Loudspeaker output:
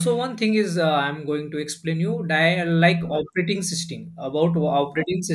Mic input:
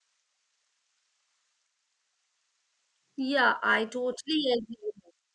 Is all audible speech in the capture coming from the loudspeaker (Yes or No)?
No